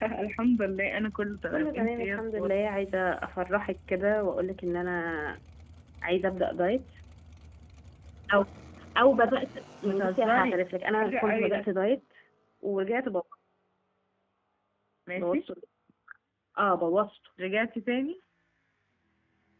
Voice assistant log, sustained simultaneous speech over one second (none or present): present